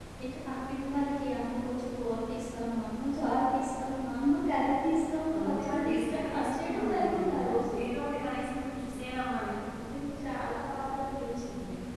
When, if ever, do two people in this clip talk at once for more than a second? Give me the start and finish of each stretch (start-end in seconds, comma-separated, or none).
5.4-7.4